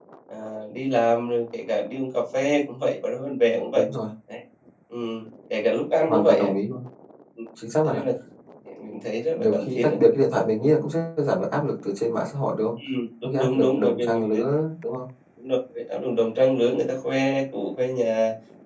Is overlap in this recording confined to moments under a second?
No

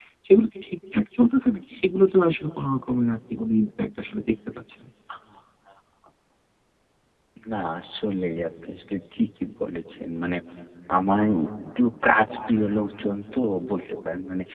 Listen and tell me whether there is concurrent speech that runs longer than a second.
No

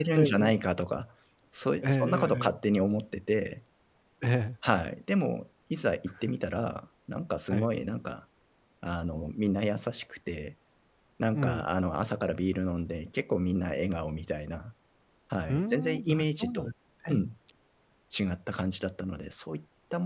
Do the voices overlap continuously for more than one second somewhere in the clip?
Yes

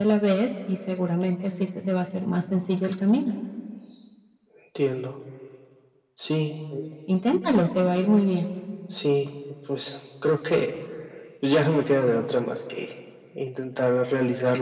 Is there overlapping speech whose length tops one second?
No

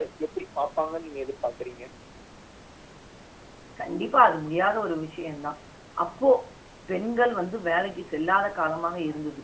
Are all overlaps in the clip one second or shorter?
Yes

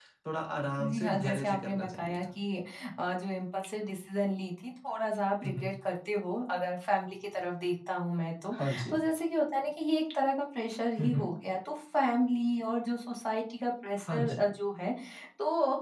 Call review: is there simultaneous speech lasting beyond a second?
Yes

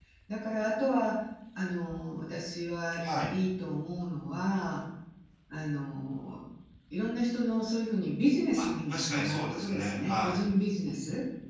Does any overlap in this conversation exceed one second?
Yes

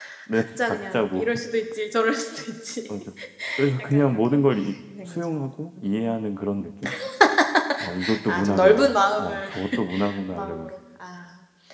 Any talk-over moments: Yes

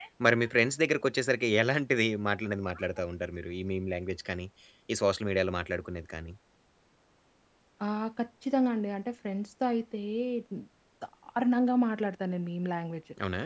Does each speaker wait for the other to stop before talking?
Yes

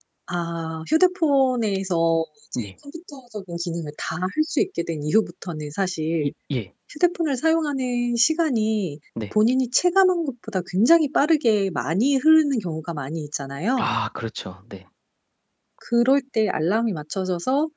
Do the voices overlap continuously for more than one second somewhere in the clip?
No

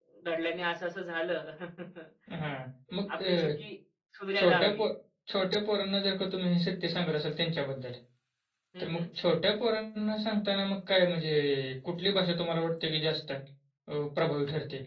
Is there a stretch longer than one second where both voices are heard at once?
No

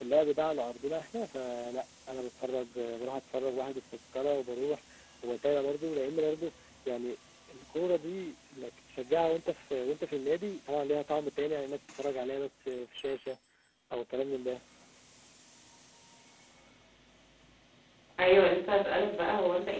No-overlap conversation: Yes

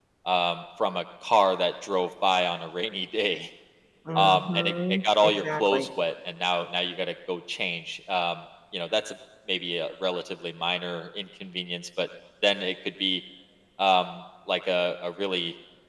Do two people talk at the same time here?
Yes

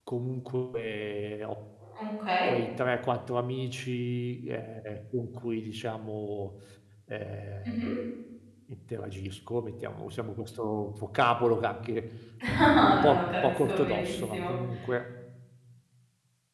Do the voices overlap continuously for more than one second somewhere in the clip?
Yes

